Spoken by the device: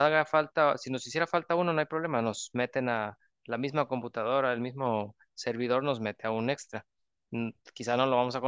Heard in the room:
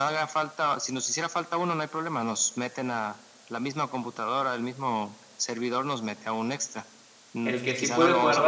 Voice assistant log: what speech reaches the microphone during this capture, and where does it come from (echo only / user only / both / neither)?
both